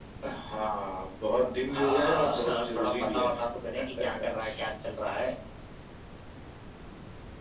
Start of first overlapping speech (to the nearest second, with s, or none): 2 s